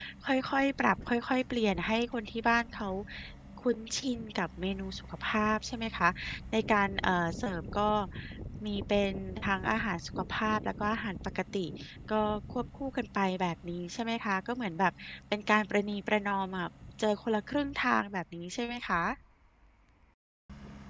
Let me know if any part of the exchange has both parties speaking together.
No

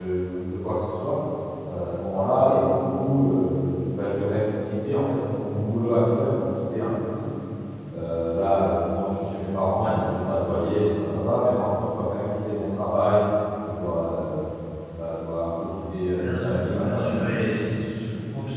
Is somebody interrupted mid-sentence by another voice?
Yes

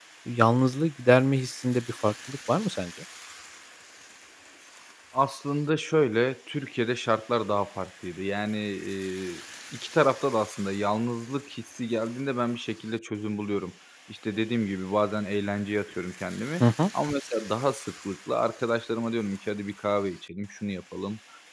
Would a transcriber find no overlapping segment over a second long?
Yes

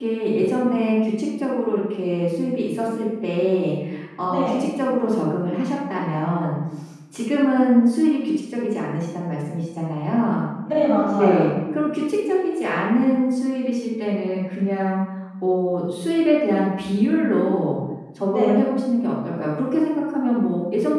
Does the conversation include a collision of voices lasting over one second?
No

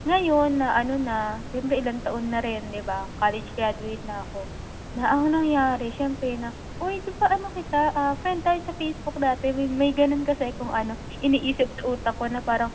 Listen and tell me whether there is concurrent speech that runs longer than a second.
No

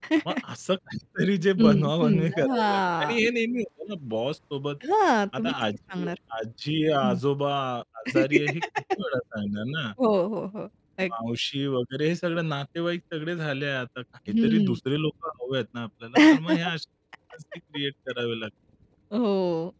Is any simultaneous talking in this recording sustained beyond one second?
Yes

